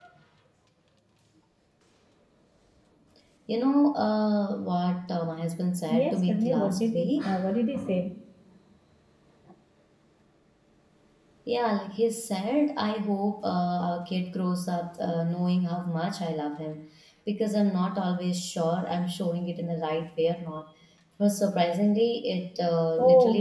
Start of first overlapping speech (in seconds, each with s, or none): 5.9 s